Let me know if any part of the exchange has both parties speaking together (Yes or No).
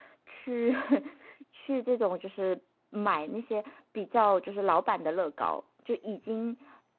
No